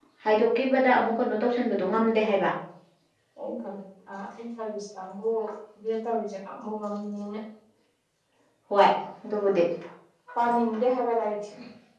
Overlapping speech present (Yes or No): No